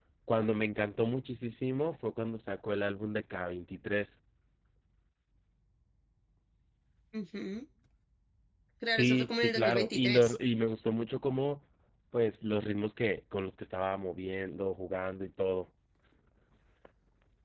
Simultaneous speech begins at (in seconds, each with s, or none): 8.9 s